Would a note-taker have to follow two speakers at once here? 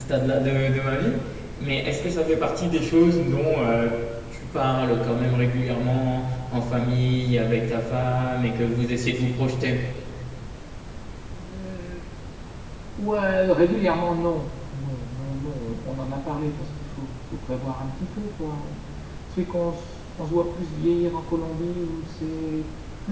No

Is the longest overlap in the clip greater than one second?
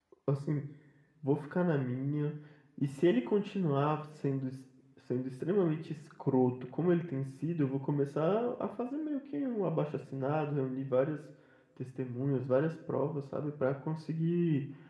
No

